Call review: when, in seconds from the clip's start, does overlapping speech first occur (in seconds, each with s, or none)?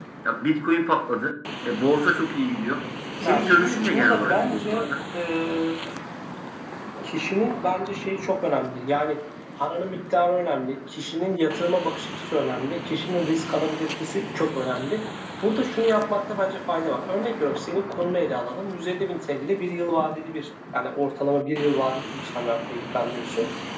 3.2 s